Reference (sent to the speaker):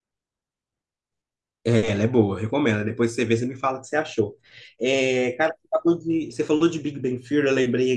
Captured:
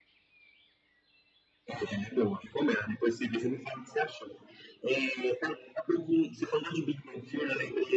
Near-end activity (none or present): none